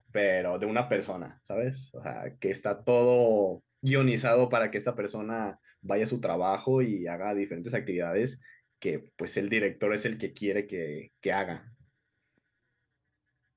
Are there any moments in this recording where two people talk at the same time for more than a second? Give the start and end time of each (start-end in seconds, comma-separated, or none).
none